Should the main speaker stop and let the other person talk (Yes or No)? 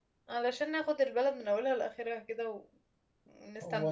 Yes